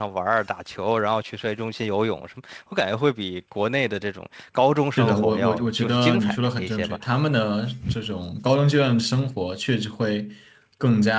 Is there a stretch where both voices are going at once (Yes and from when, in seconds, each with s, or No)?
Yes, from 5.0 s